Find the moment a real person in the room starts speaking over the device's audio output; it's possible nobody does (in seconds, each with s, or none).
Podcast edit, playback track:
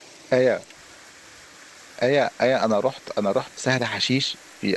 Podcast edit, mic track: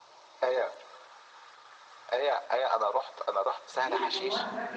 3.7 s